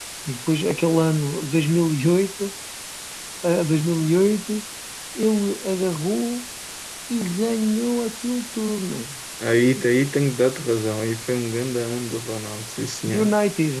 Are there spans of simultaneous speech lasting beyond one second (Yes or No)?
No